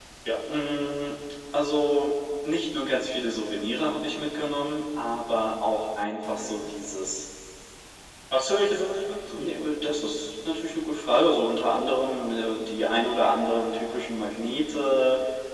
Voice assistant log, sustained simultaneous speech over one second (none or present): none